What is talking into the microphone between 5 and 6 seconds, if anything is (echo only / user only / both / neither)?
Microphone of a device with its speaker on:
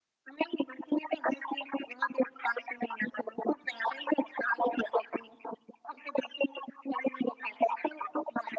echo only